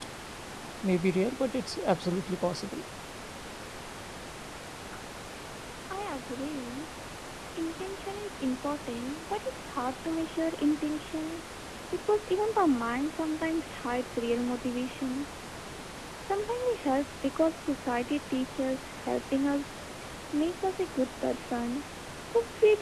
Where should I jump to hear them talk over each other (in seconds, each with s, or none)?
none